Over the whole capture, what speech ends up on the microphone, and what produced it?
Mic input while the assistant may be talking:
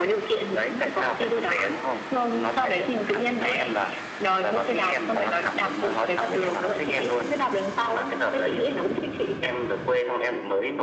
echo only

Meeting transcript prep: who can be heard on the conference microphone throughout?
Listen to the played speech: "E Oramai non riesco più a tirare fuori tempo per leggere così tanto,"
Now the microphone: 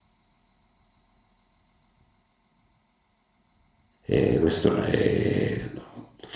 user only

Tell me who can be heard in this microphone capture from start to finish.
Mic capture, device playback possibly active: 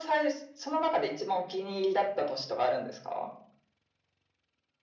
echo only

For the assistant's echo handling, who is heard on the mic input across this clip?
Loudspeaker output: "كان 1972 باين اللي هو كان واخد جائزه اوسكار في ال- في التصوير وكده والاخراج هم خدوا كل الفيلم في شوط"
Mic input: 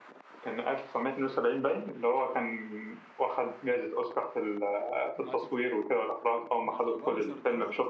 both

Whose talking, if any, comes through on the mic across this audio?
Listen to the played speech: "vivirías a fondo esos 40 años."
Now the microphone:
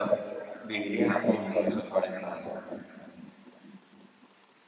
echo only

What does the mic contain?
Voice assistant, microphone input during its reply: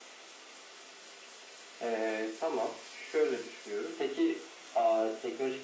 echo only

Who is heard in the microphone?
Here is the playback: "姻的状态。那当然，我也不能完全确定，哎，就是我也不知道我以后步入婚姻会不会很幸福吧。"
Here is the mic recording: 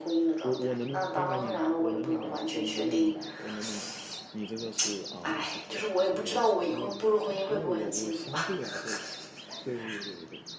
both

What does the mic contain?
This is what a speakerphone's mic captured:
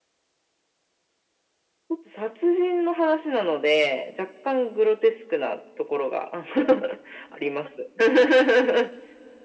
echo only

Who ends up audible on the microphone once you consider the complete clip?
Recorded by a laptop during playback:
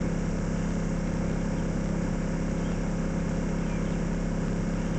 neither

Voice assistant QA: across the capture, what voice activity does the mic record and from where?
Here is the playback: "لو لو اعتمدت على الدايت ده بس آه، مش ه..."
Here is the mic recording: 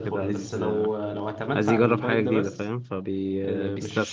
both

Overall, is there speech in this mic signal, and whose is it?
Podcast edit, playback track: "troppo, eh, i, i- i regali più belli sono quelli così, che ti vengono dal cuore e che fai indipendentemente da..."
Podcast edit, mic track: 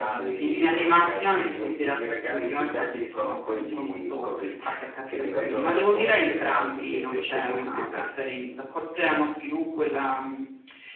both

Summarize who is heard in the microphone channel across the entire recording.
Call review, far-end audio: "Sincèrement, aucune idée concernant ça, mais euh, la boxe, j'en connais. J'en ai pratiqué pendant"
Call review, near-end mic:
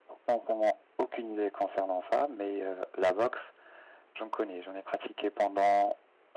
echo only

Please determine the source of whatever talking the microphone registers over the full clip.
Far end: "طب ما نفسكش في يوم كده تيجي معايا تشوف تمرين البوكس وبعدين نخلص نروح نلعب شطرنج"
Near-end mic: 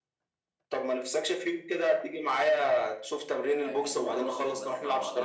both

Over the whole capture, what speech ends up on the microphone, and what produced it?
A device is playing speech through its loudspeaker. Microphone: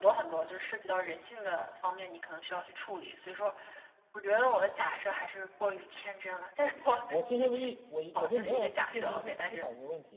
both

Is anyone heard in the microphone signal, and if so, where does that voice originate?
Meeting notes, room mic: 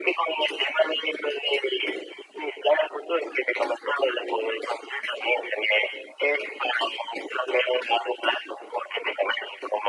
echo only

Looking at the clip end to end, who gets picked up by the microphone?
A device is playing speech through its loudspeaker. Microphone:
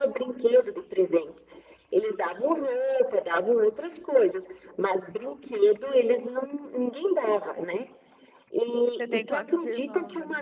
both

